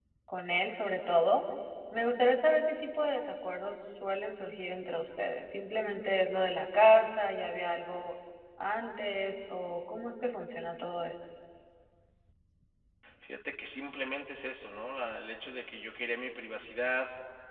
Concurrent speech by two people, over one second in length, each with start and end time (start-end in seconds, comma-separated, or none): none